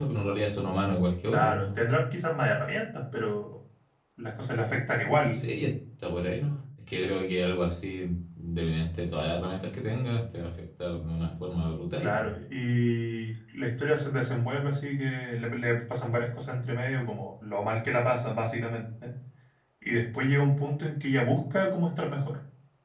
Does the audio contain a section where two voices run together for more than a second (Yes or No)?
No